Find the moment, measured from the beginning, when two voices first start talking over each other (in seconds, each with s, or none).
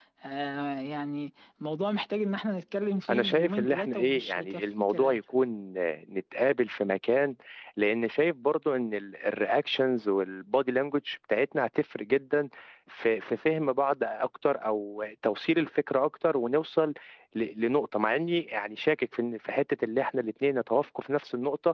3.1 s